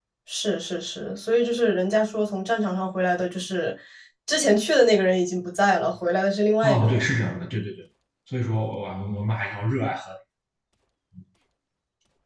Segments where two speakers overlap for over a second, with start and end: none

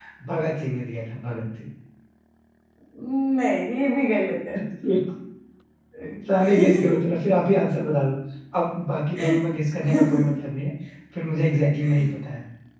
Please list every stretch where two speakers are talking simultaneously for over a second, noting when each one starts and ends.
none

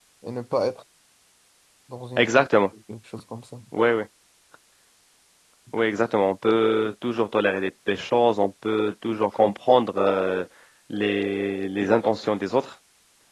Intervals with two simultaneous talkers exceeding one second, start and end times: none

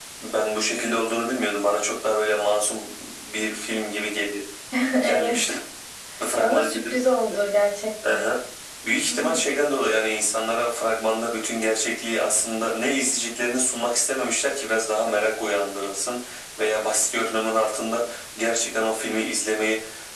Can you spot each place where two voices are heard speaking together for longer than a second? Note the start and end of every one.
none

